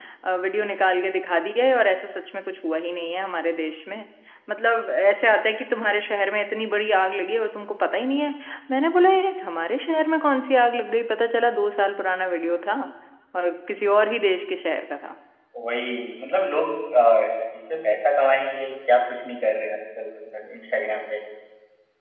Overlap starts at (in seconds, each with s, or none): none